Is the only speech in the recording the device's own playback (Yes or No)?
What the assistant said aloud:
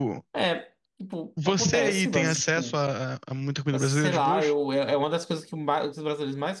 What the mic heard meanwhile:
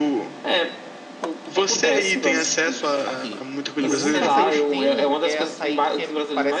No